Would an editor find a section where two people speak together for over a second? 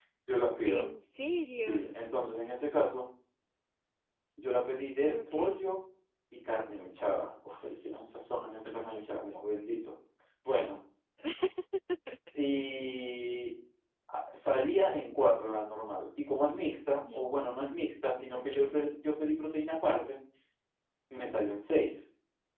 No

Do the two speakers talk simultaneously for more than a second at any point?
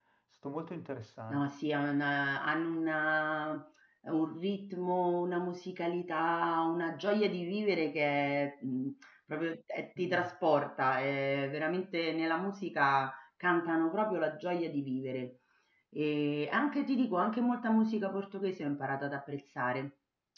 No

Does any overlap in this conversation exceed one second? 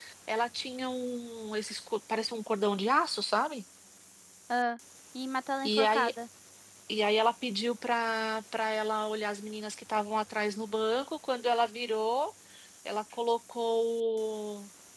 No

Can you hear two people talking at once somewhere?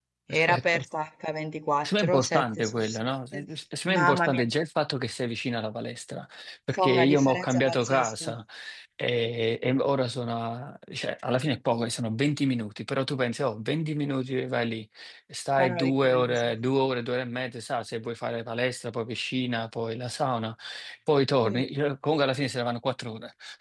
Yes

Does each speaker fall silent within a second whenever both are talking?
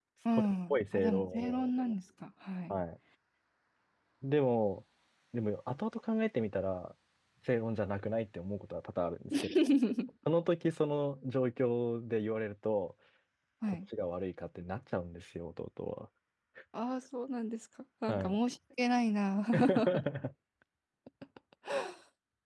No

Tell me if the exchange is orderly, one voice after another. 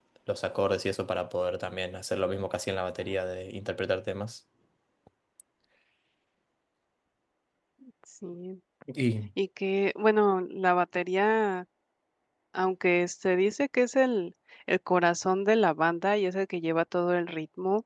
Yes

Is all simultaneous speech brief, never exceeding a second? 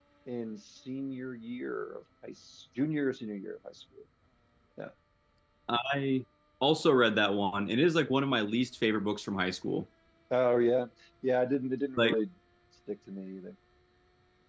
Yes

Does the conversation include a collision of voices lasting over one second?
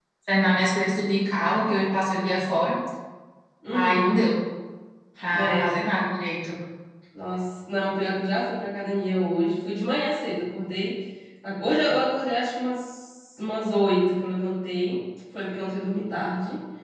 No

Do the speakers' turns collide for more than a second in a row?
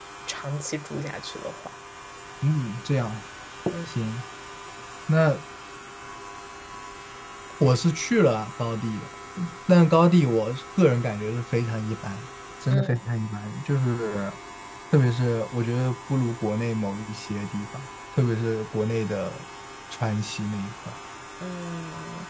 No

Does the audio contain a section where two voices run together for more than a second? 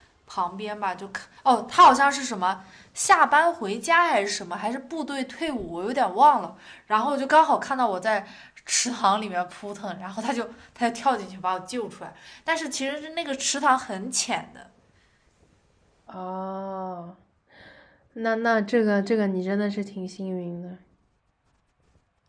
No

